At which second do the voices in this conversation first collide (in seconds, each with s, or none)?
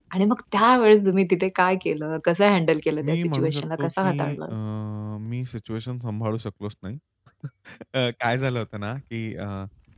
3.0 s